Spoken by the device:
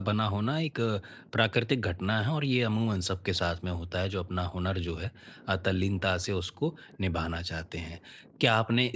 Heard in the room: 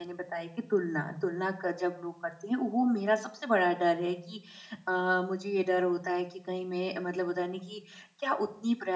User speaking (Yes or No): Yes